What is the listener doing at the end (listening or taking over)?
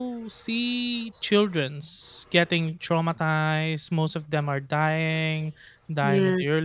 listening